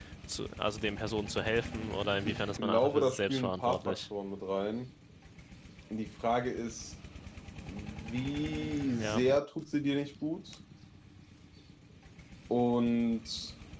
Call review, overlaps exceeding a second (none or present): present